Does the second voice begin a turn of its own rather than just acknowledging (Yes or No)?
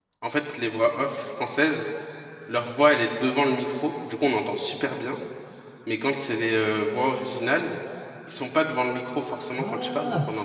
Yes